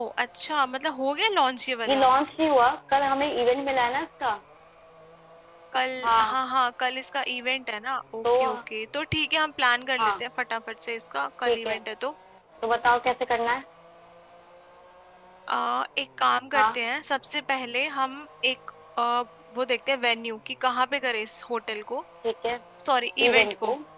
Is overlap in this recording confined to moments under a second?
Yes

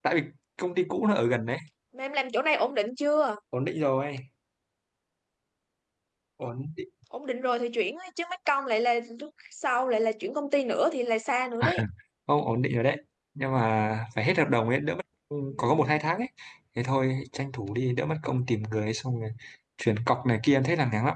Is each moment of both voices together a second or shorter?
Yes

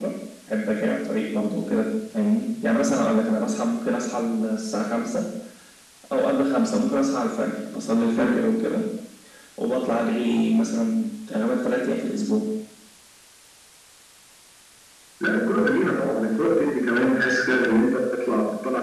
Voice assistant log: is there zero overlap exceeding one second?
Yes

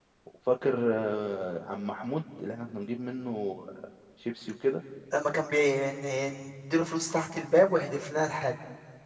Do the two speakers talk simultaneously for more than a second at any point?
No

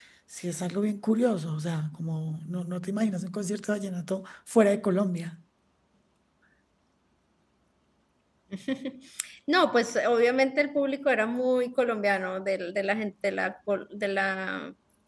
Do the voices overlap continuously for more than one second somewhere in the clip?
No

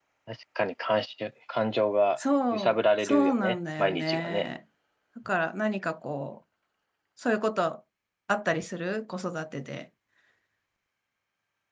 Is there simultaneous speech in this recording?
Yes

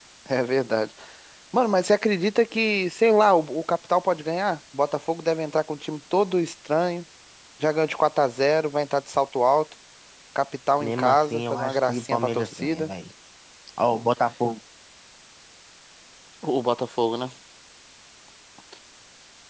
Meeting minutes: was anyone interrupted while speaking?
Yes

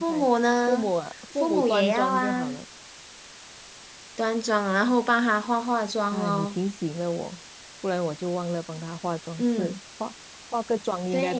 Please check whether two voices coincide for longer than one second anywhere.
Yes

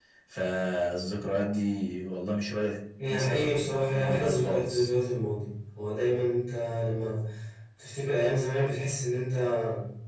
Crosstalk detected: Yes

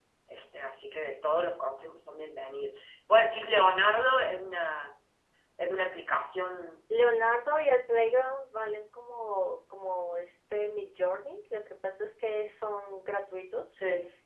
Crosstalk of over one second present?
No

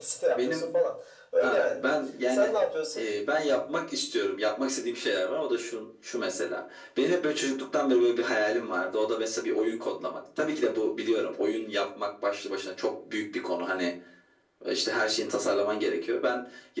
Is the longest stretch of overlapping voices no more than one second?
Yes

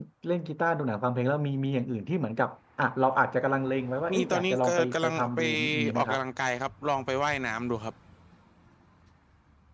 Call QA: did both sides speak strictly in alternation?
No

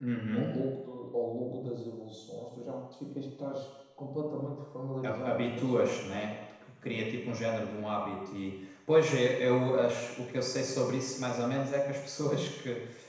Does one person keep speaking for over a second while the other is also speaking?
Yes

